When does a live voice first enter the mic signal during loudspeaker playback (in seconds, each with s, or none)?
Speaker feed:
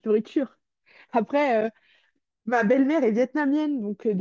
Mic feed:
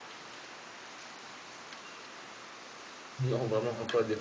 3.2 s